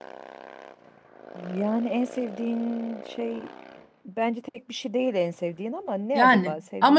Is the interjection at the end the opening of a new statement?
Yes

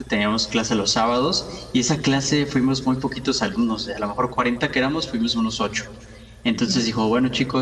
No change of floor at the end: Yes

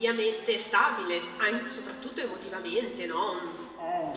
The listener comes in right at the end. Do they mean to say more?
No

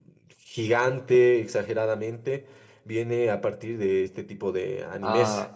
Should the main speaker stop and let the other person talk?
Yes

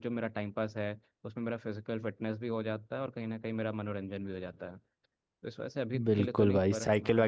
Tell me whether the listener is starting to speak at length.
Yes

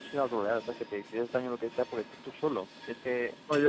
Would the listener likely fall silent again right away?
No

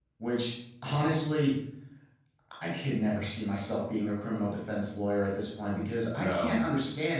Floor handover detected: No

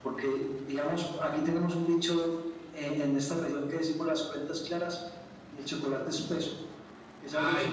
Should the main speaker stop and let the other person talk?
Yes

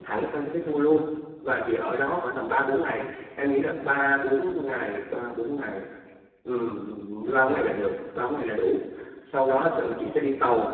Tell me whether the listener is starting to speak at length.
No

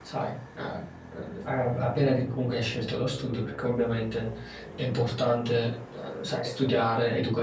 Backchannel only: Yes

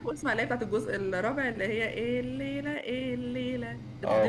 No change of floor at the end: No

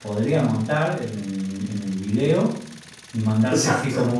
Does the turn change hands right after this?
No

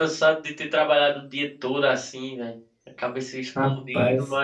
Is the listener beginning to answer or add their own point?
No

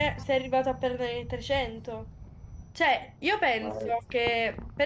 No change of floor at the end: Yes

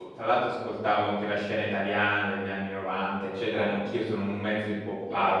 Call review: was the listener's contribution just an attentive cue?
Yes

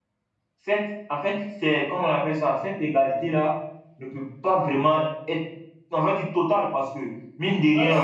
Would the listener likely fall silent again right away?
No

